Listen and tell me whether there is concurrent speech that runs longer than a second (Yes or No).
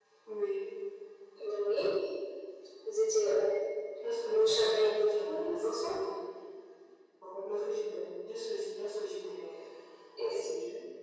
Yes